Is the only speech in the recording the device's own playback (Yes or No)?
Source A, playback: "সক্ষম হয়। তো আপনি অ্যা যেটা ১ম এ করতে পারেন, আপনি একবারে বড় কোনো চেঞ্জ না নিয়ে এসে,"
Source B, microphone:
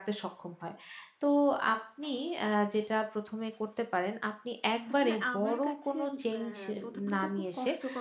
No